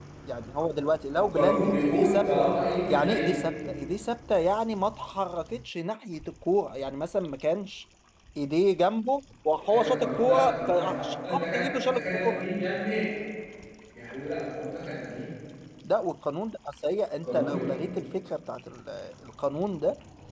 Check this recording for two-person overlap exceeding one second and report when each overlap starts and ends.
1.1-2.3, 9.7-12.4

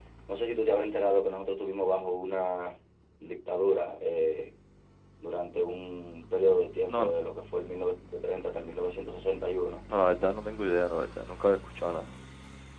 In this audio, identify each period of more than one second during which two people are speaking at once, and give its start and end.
none

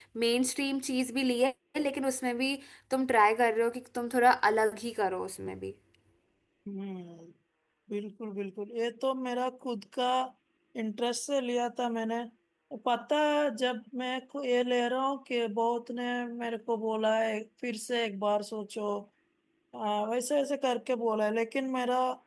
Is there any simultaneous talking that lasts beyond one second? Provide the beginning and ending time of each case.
none

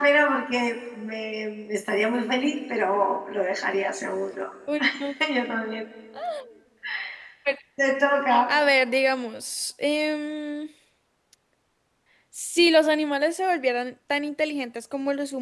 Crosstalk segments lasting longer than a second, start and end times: none

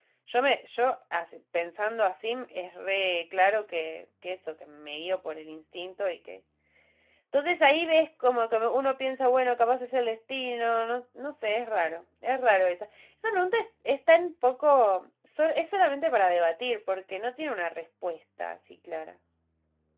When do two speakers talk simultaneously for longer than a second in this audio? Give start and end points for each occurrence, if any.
none

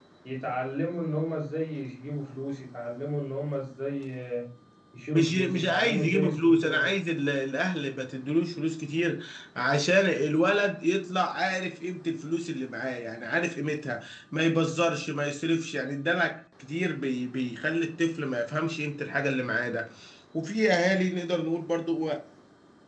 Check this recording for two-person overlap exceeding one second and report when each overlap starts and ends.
5.1-6.9

